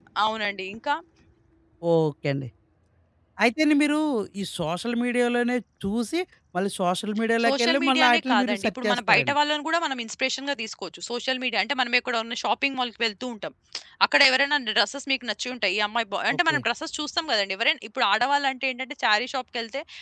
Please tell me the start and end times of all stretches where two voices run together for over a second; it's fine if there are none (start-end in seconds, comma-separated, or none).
7.4-9.4